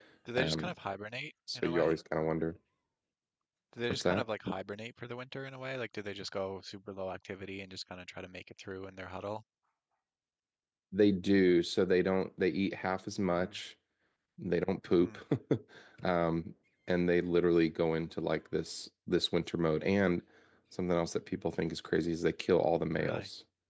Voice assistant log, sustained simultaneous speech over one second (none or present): none